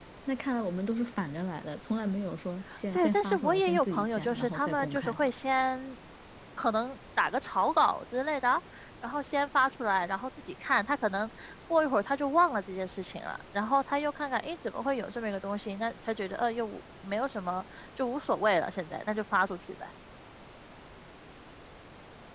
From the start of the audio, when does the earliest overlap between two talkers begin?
2.7 s

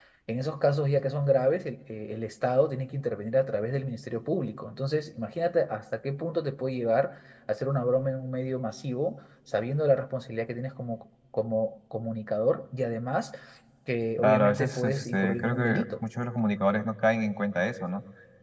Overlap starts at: 14.2 s

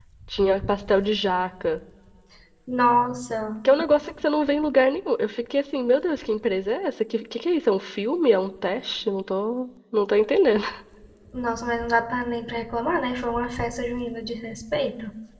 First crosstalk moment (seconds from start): none

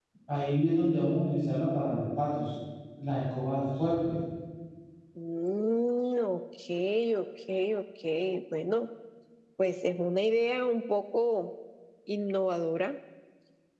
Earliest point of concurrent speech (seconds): none

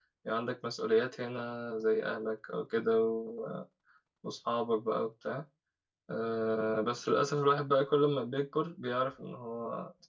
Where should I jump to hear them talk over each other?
none

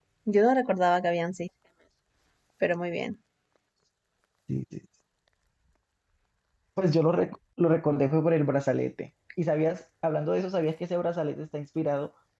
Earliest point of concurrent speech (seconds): none

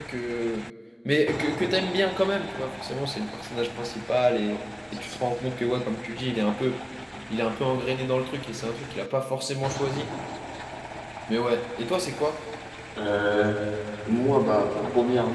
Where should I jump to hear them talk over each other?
none

